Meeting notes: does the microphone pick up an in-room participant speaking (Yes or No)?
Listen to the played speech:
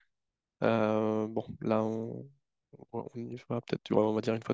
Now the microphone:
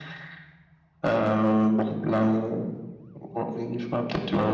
No